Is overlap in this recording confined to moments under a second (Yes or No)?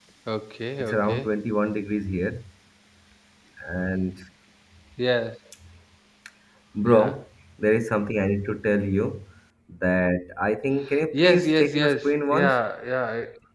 No